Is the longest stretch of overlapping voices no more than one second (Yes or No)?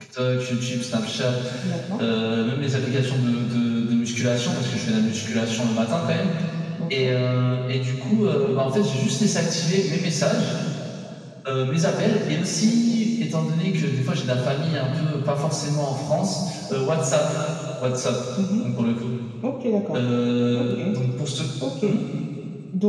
Yes